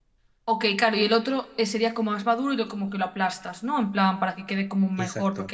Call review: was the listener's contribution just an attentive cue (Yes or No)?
Yes